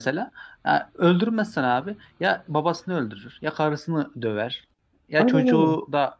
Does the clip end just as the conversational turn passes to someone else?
No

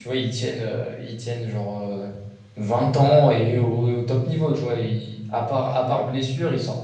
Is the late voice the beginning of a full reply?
No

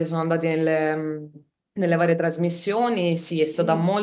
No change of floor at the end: Yes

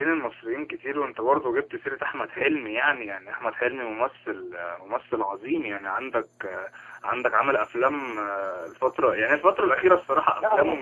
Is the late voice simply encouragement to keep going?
No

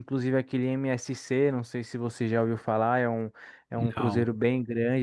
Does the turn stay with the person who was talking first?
Yes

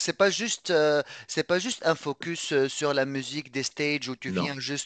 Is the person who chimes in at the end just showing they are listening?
Yes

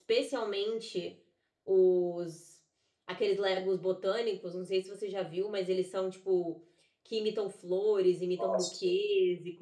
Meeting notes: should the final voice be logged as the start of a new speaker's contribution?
No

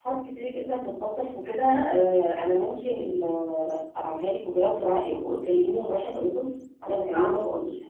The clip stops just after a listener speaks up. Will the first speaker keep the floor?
Yes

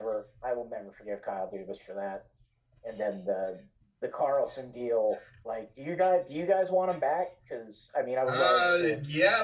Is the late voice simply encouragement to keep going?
No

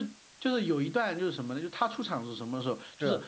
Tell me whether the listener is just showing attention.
Yes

